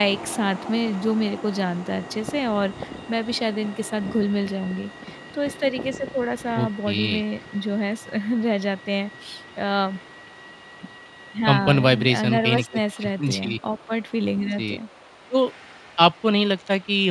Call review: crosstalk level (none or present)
present